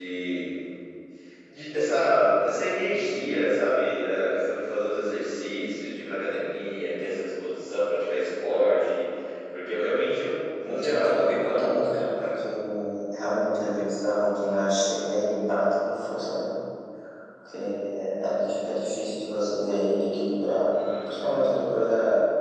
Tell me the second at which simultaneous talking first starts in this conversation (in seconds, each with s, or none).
10.6 s